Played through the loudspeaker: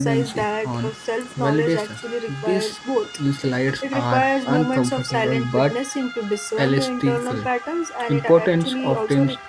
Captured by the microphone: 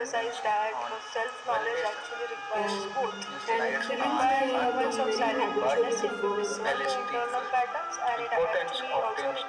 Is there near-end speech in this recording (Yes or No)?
Yes